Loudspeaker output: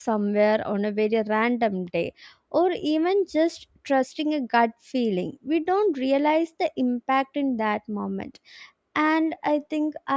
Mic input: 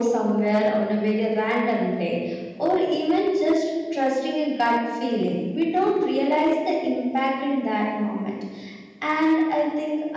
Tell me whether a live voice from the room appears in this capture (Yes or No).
No